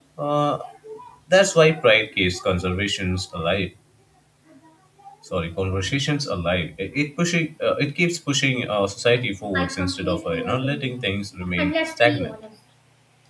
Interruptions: present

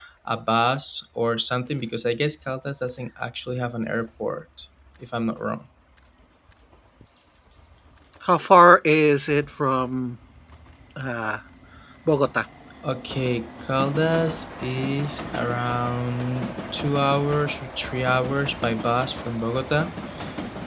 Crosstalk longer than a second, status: none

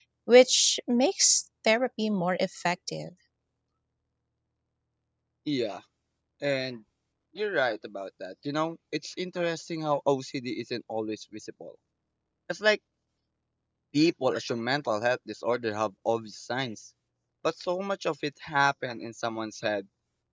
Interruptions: none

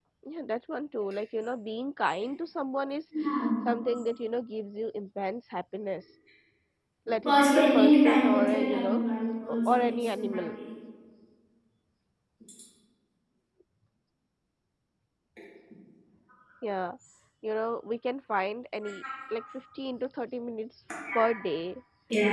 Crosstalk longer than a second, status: present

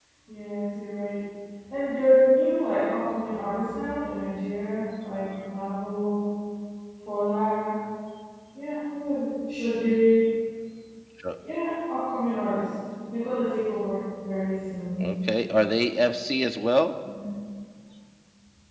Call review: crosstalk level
none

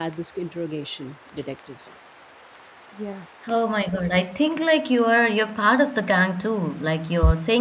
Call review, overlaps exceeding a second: none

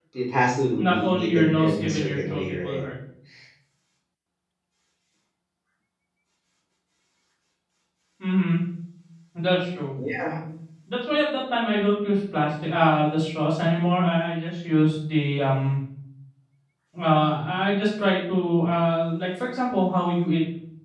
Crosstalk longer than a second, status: present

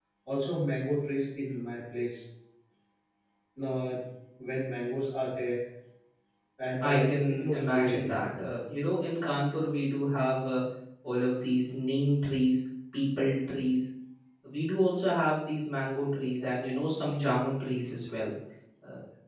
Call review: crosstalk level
present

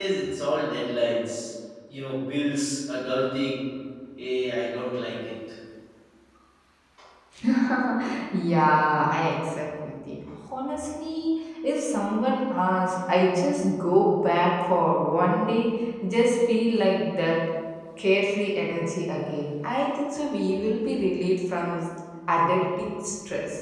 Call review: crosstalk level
none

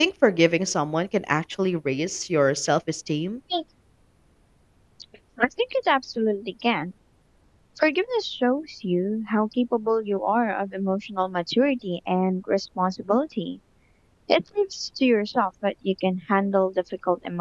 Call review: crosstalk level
none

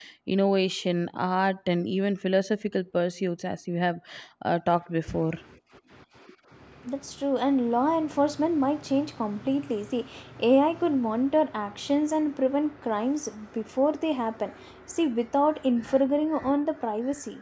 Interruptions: none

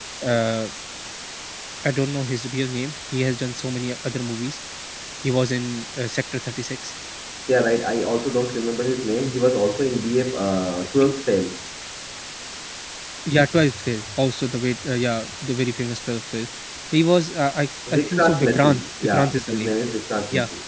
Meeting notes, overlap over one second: present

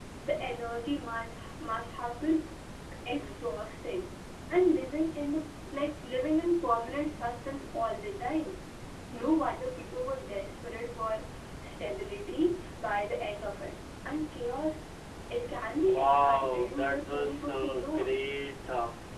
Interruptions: present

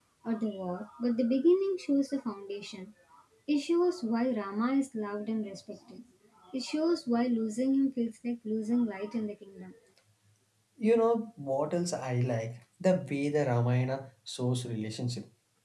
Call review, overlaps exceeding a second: none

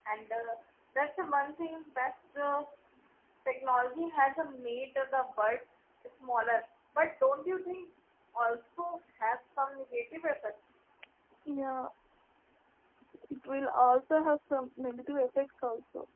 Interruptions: none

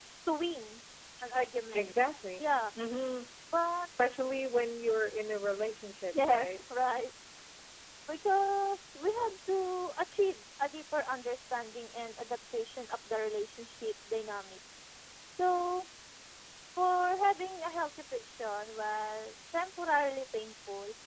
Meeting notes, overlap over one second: none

